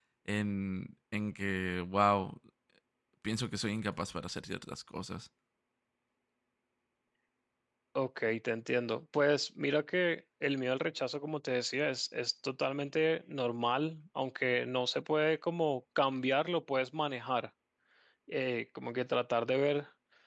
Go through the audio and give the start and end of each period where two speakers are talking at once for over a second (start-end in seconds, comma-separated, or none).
none